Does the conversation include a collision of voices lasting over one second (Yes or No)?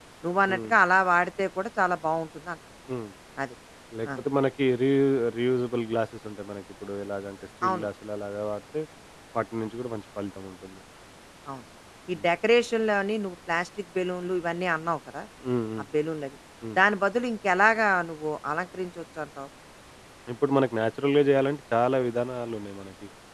No